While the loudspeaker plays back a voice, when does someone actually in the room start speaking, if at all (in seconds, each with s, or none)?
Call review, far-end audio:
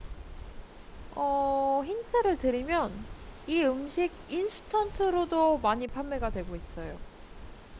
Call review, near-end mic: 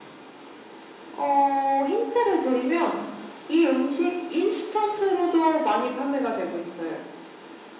none